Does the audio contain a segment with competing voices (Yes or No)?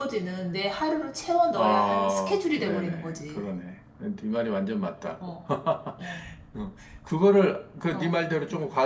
Yes